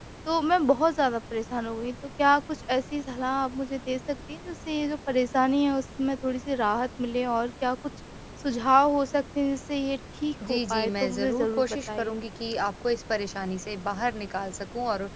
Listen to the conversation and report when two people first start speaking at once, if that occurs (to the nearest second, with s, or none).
10 s